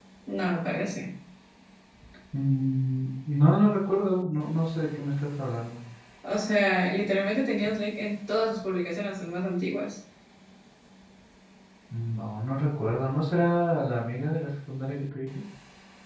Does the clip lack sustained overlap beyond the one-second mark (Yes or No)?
Yes